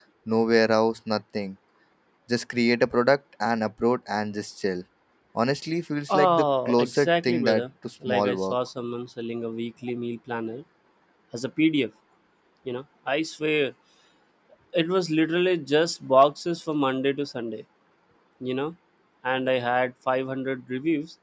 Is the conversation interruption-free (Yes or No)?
No